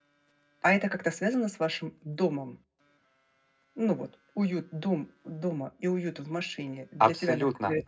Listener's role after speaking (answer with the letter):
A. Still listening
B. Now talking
B